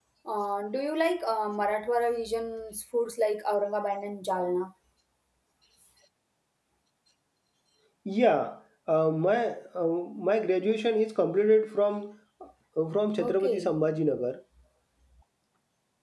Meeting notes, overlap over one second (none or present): none